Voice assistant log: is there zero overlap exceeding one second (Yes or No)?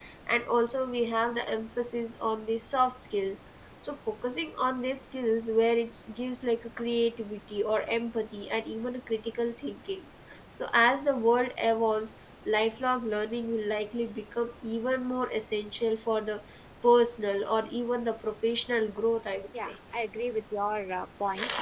Yes